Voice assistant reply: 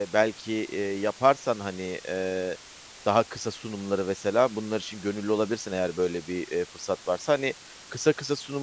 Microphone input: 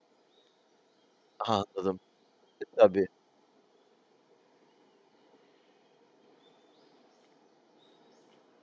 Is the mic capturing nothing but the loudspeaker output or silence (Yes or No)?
No